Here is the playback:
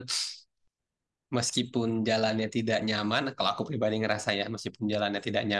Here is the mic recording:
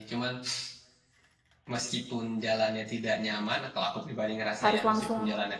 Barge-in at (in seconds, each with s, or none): 4.6 s